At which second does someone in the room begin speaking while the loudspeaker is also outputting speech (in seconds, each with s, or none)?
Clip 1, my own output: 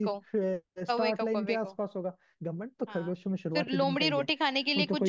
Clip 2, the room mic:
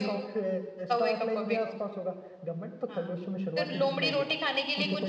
none